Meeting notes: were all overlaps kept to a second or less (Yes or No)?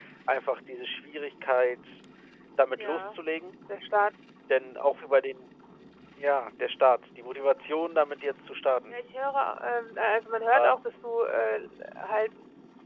Yes